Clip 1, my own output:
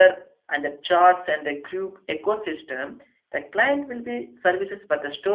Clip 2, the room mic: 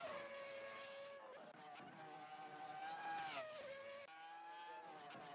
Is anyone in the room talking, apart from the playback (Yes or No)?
No